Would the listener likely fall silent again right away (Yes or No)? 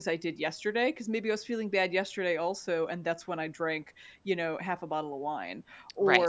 Yes